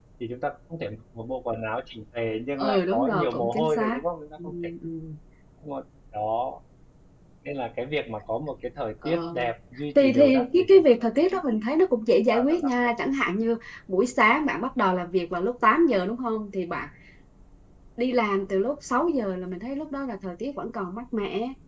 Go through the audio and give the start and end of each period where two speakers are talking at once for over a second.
2.6-4.0, 9.9-11.6

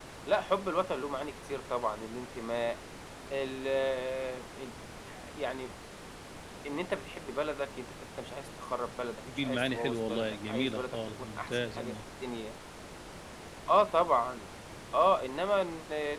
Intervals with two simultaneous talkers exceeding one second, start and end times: 9.4-11.9

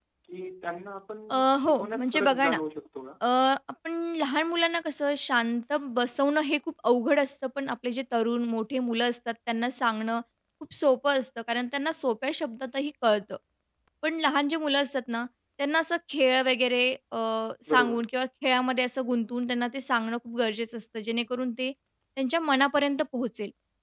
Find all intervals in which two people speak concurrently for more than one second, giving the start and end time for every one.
1.3-2.6

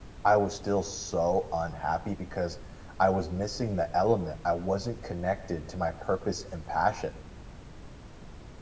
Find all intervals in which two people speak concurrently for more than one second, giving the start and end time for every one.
none

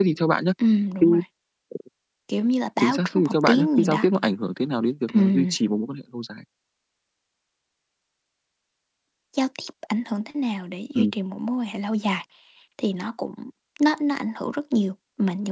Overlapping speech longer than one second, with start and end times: 2.8-4.0

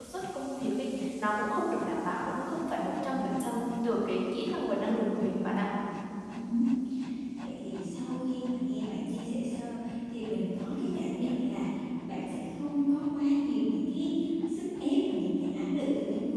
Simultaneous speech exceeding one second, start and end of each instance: none

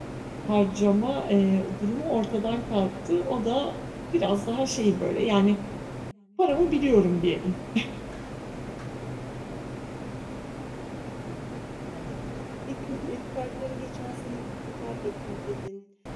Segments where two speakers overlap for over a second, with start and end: none

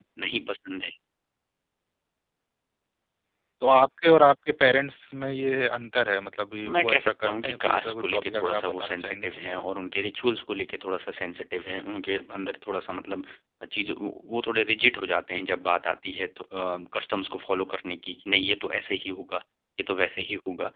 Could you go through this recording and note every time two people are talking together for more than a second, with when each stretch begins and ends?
6.7-9.4

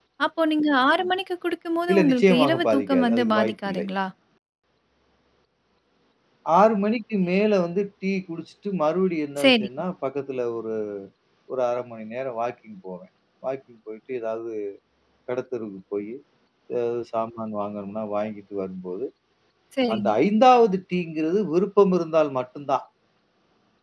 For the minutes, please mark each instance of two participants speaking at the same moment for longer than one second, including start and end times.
1.9-3.8

